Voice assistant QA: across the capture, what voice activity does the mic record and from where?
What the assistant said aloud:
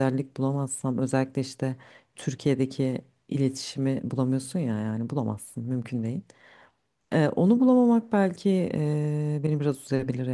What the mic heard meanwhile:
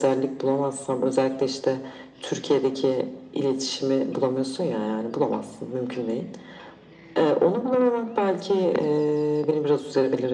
both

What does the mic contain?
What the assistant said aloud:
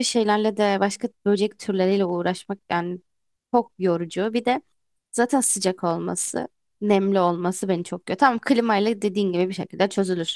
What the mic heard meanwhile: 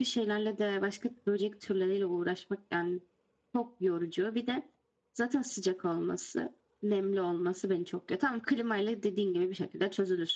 echo only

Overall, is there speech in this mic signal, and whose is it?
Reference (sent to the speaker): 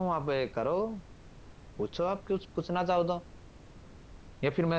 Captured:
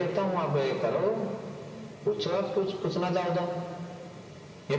echo only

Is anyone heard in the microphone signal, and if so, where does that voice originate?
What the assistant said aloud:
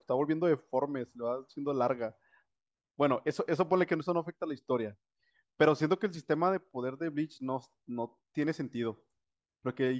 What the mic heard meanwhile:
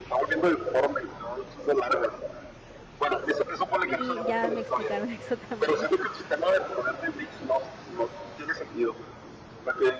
both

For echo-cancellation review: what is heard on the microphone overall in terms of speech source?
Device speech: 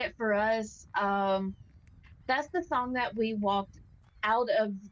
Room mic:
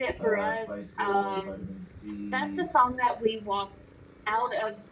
both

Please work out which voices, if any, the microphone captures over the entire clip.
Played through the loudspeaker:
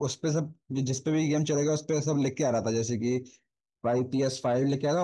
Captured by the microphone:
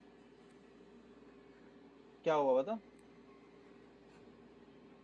user only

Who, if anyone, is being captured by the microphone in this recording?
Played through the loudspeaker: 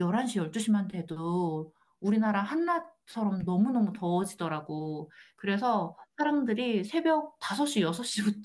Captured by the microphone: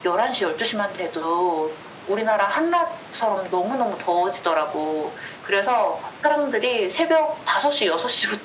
echo only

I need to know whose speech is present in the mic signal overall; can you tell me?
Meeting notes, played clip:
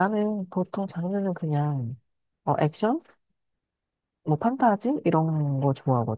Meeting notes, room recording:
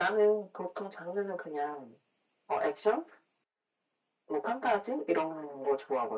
echo only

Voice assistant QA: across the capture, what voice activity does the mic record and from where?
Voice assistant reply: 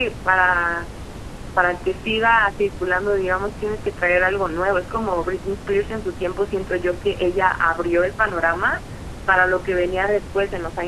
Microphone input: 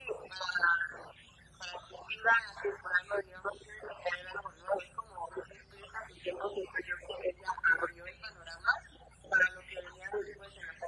echo only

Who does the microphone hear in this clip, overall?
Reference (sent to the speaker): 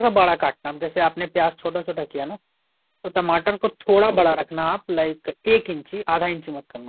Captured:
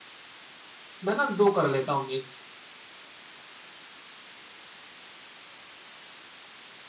user only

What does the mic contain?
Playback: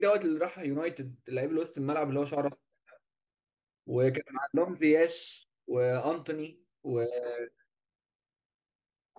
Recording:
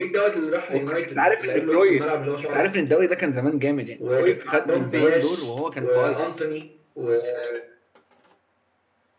both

